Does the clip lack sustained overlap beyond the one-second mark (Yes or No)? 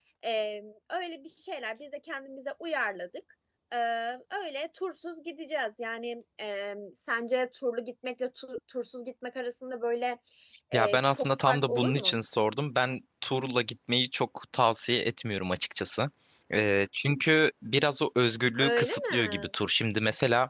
No